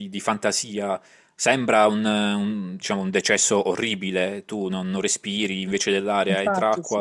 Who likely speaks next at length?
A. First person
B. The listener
A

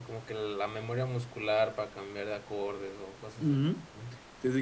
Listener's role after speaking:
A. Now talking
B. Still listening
A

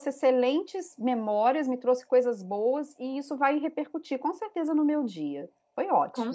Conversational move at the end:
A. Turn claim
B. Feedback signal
A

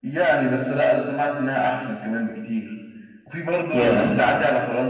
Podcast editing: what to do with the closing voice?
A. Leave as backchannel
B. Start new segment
A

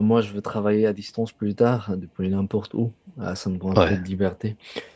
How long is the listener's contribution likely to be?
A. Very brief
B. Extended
A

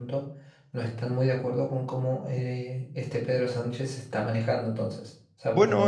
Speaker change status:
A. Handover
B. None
B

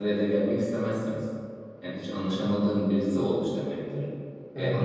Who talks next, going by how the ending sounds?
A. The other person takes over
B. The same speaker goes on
B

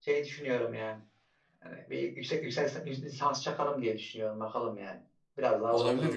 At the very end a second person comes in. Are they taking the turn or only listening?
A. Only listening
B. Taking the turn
B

